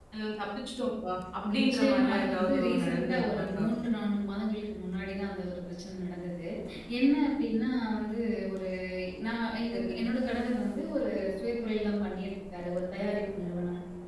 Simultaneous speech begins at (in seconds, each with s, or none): 1.5 s